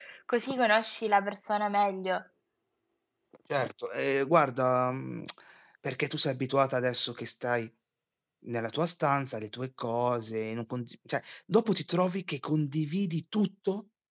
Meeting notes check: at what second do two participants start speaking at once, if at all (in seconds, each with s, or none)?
none